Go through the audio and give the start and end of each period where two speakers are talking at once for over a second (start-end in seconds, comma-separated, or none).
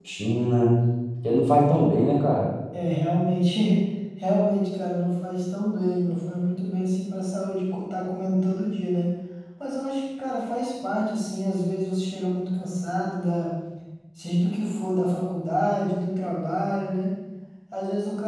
none